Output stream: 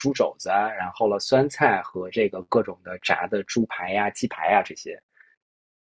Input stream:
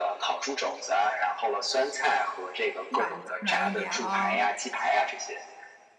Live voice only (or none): 软的软一点啊、